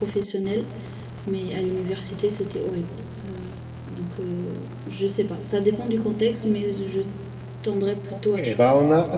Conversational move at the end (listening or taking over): taking over